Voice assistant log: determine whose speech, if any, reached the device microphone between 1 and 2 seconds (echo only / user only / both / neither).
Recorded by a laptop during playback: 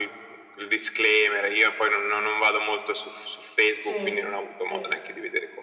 echo only